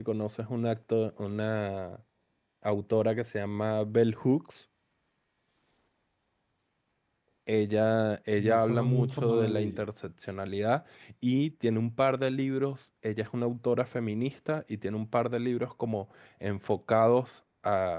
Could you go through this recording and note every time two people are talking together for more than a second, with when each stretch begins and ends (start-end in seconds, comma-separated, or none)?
8.4-9.9